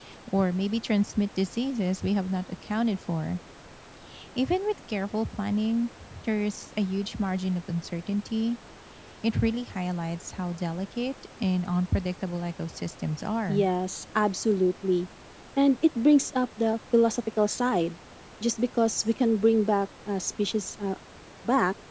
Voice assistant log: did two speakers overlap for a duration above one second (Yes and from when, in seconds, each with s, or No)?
No